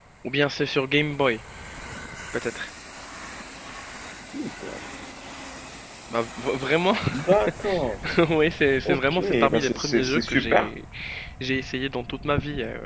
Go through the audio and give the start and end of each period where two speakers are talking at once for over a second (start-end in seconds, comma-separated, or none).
8.8-10.7